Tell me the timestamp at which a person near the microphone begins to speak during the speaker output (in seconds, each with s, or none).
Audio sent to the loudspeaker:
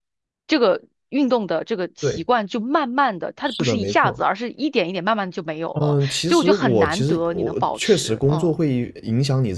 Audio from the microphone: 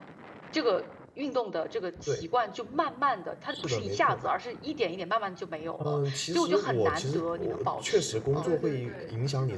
8.4 s